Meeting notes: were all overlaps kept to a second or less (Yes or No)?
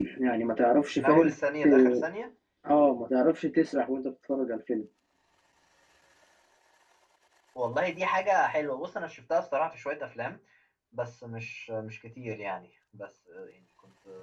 Yes